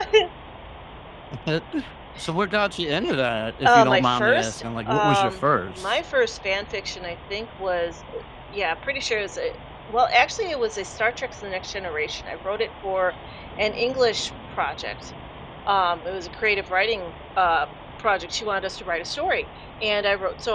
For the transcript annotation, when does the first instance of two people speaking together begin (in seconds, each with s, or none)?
3.6 s